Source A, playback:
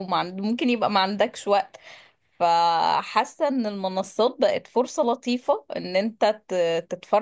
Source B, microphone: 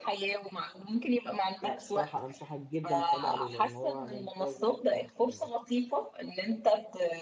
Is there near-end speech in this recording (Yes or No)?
Yes